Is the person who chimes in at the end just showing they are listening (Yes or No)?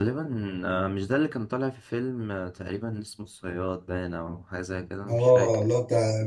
No